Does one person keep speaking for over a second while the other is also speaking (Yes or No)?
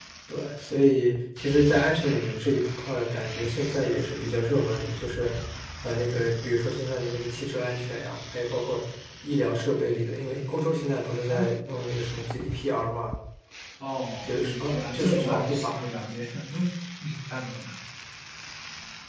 Yes